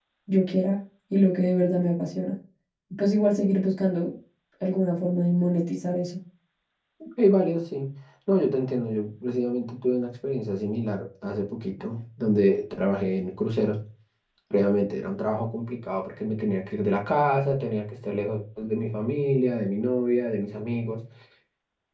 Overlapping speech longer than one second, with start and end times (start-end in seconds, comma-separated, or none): none